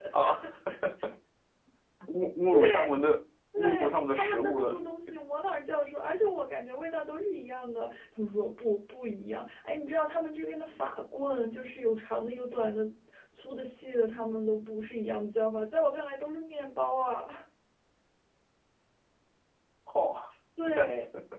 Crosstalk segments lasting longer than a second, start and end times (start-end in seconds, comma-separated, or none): 3.6-4.8